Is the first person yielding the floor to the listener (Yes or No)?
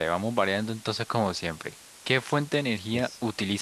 No